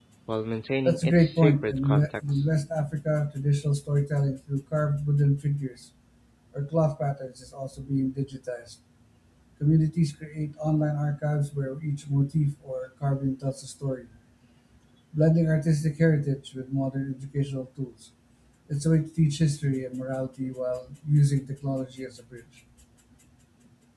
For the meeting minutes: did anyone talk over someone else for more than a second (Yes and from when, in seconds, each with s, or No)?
Yes, from 0.8 s